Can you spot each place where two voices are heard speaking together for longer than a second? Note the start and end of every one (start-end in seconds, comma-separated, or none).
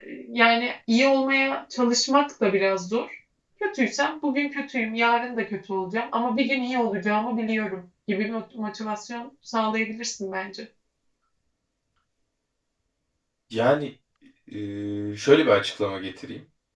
none